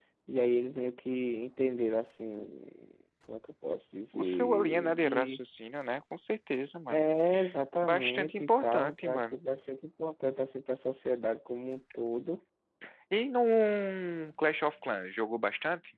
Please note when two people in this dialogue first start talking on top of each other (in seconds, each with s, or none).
4.1 s